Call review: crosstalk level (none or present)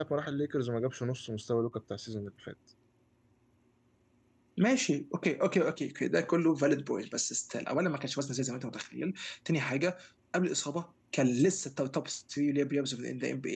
none